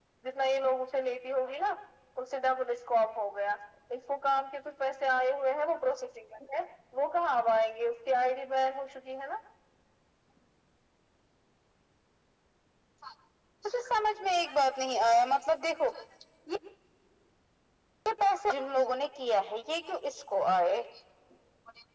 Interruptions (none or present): none